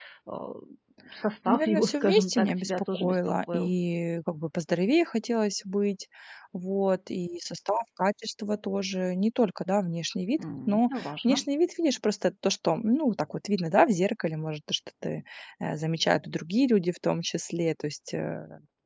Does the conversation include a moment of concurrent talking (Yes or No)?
Yes